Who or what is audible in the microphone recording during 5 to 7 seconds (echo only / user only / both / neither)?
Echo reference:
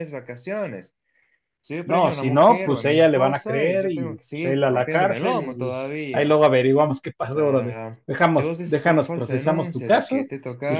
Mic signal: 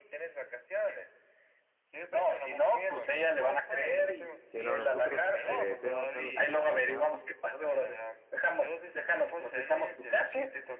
both